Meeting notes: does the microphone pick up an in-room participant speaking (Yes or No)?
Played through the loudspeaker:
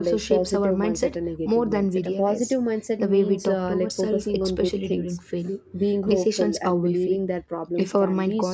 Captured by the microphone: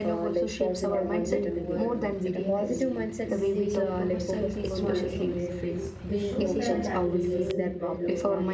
Yes